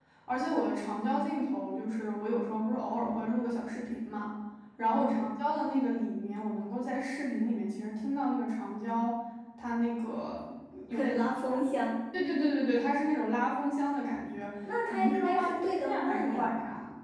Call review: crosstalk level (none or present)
present